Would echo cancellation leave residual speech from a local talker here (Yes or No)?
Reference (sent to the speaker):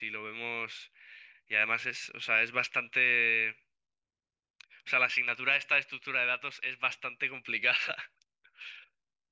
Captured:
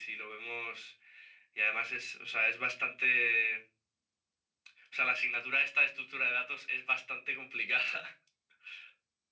No